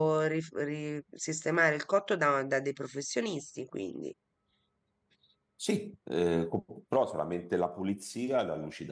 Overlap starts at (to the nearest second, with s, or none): none